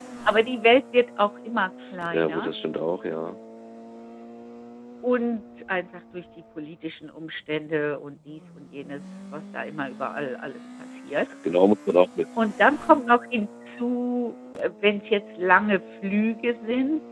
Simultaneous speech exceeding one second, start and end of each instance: none

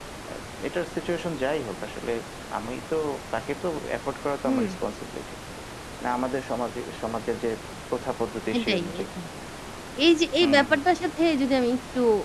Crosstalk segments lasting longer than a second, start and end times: none

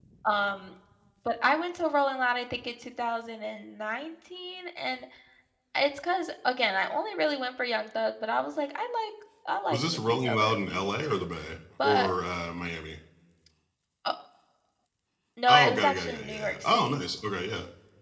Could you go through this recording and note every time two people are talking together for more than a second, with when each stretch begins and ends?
9.7-11.2, 15.5-17.0

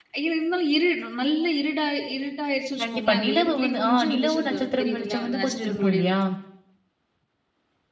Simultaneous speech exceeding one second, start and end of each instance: 2.8-6.2

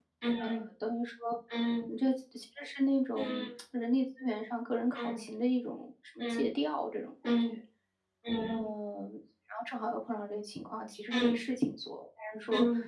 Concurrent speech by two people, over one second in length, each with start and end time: none

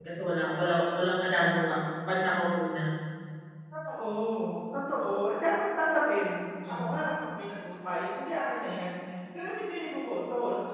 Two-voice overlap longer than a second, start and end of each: none

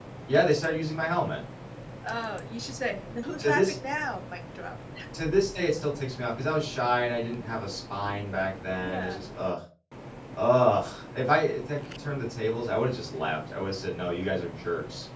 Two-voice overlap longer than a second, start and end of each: none

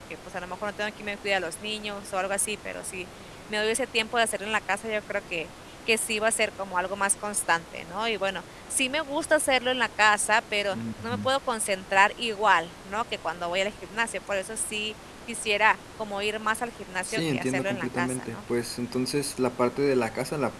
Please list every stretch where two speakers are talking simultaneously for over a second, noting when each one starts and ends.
17.0-18.4

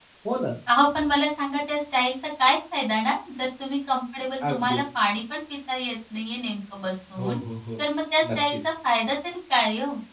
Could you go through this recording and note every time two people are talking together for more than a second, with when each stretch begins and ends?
none

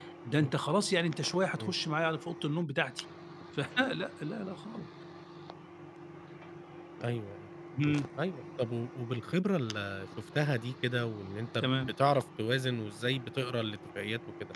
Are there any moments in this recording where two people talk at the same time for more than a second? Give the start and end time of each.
none

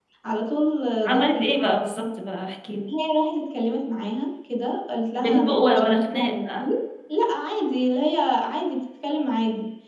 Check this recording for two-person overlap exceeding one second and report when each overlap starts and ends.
5.2-6.7

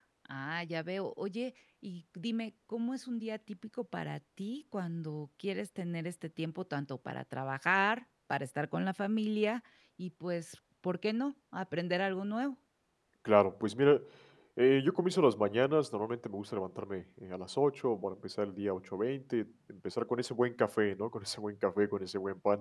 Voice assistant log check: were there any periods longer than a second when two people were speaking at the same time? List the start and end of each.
none

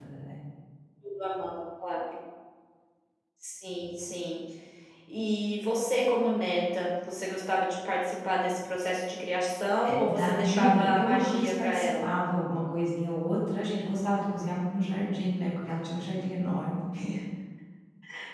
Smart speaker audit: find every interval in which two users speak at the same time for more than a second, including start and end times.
9.8-12.1

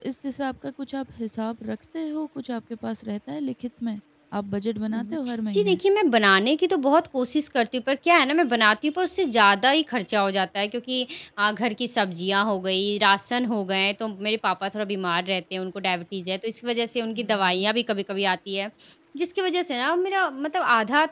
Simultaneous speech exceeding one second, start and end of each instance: none

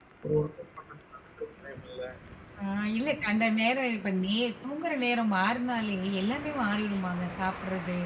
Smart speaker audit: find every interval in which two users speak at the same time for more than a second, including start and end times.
none

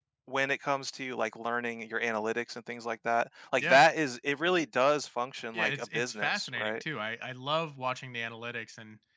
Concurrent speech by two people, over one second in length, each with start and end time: 5.5-6.8

